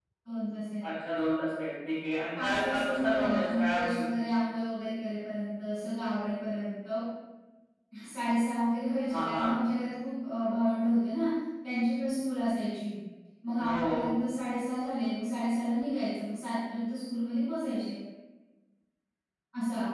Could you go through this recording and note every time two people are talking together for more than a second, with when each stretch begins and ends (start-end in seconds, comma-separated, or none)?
2.4-4.0